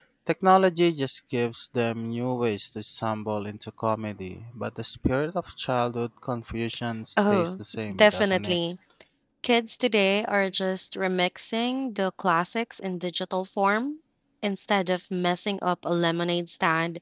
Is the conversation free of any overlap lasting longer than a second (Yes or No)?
No